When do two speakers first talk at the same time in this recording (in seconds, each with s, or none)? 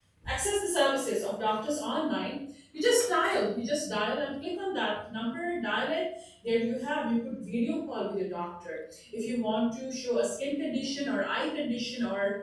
none